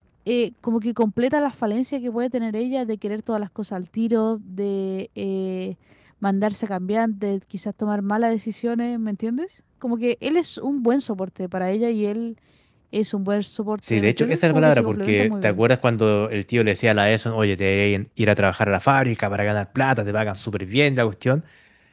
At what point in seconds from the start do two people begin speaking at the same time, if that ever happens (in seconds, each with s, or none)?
13.8 s